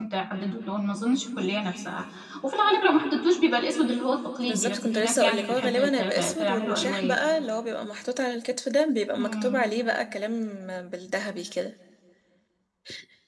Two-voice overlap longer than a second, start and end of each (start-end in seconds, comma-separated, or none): 4.4-7.2